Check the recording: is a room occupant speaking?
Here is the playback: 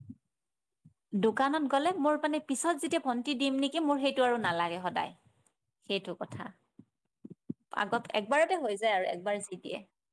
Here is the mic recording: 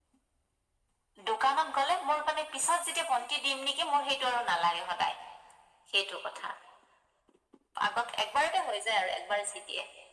No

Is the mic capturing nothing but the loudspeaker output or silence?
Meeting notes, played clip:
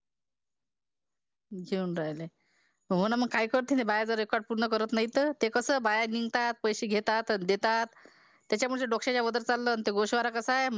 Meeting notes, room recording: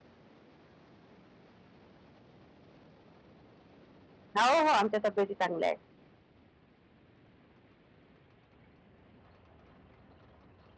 No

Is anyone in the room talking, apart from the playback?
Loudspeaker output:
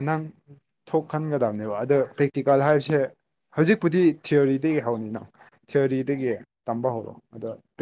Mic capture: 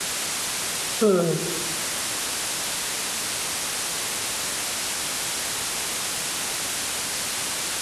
Yes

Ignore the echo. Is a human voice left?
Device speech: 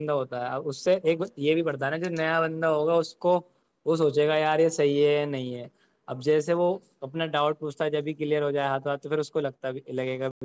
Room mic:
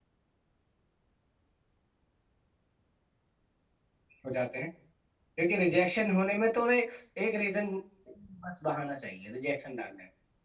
Yes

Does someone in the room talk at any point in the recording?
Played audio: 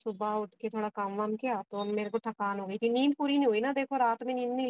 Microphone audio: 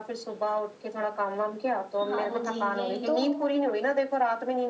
Yes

